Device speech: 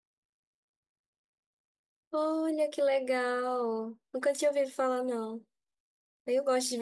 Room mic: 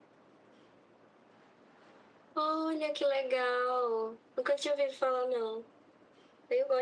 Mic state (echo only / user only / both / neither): echo only